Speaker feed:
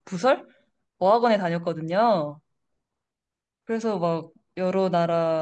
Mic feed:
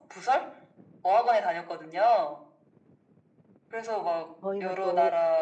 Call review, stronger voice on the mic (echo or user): echo